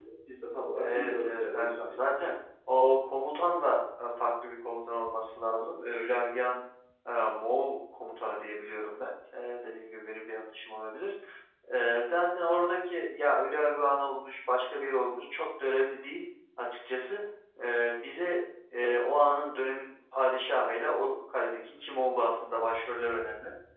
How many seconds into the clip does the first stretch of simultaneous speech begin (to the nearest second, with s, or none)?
1 s